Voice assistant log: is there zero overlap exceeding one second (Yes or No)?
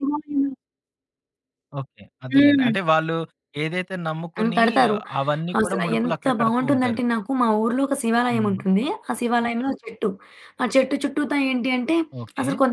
No